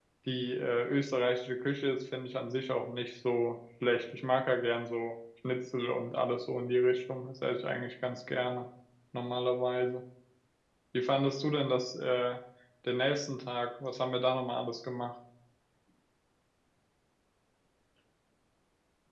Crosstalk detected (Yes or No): No